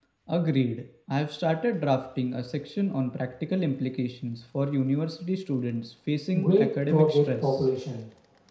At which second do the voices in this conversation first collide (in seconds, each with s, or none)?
6.3 s